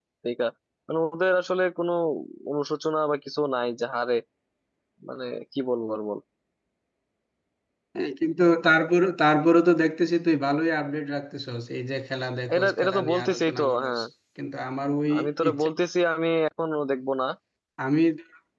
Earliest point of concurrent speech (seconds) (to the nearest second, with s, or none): 13 s